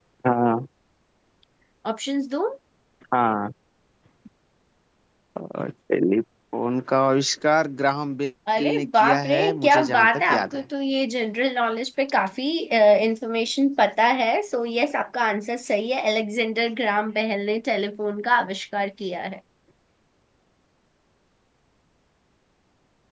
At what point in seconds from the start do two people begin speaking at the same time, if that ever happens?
8 s

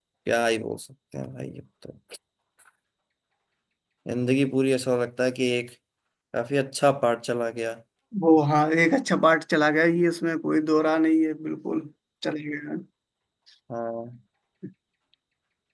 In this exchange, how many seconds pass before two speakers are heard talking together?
none

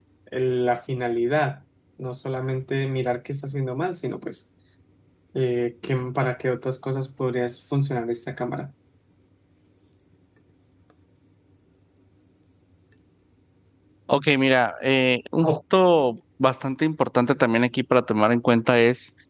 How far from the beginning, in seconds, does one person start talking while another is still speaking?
none

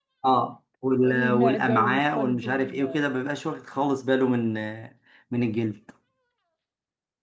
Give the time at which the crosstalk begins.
1 s

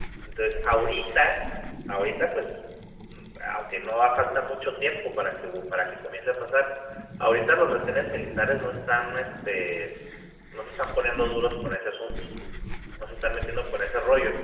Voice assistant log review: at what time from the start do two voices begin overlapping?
none

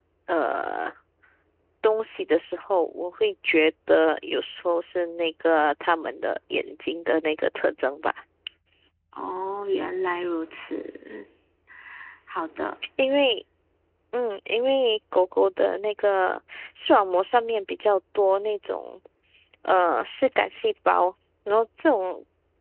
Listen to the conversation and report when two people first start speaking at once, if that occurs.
none

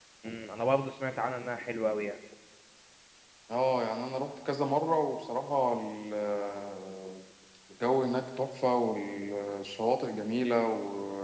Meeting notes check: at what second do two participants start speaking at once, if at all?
none

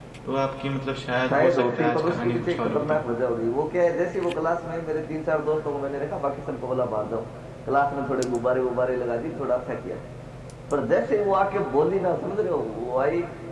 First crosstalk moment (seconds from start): 1 s

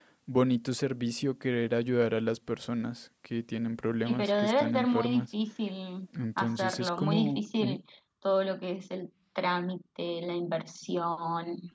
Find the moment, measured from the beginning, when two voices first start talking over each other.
4 s

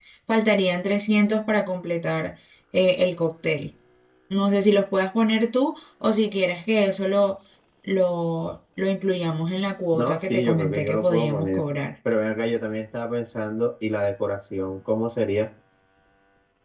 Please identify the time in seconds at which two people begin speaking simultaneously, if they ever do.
10 s

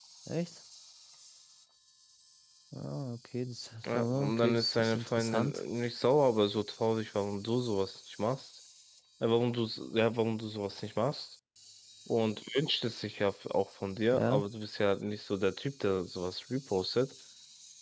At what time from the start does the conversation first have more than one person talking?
4 s

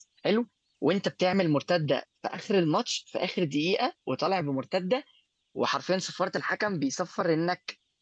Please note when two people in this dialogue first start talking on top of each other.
none

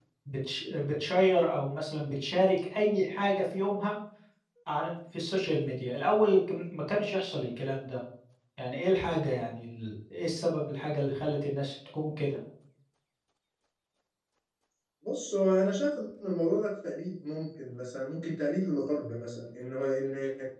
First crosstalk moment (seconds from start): none

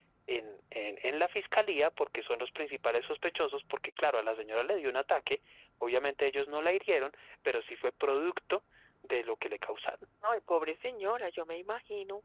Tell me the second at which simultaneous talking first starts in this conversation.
none

